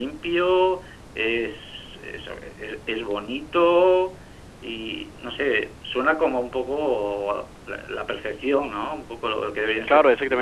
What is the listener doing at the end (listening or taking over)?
taking over